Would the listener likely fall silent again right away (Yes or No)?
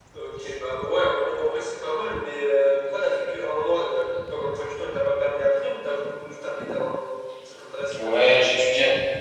No